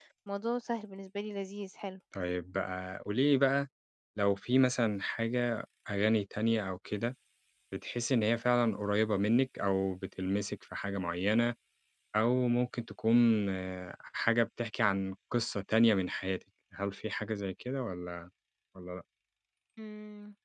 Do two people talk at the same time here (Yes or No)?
No